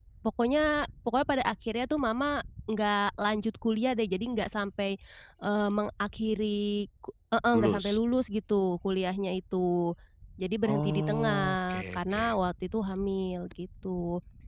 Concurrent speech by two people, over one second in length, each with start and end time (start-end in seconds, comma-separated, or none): 10.7-12.4